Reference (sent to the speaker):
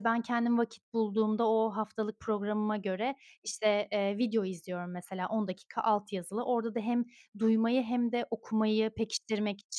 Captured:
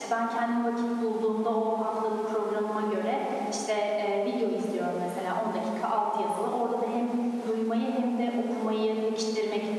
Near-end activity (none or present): none